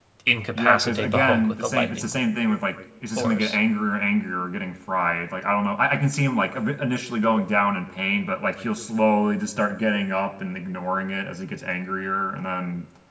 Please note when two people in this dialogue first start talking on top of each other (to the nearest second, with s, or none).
1 s